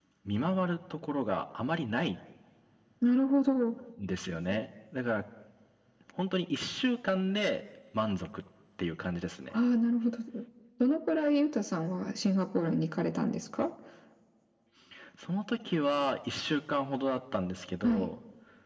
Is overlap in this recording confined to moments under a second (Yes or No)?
Yes